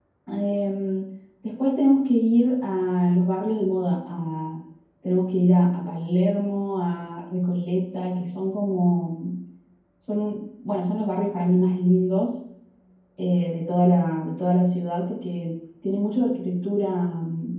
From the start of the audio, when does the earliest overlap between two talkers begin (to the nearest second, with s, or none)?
none